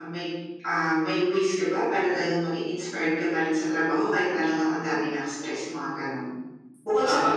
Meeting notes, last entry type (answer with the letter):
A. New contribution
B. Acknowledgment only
A